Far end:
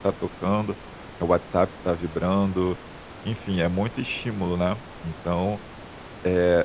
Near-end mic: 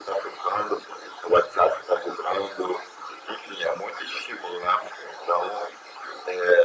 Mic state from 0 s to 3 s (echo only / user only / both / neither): echo only